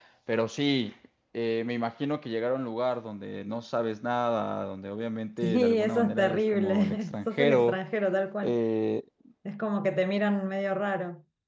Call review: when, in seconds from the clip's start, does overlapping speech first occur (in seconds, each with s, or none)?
5.4 s